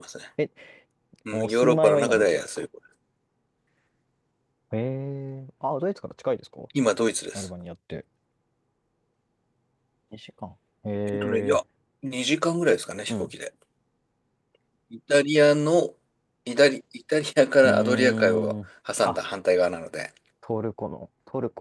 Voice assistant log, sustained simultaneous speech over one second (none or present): present